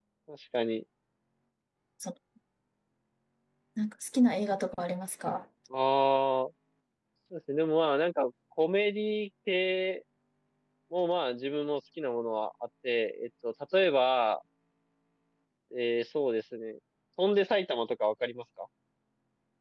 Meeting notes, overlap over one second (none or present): none